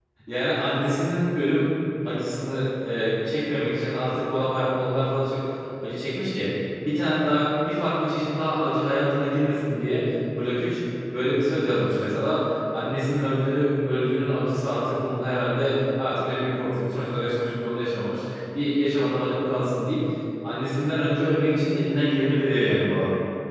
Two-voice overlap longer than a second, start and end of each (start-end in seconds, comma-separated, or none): none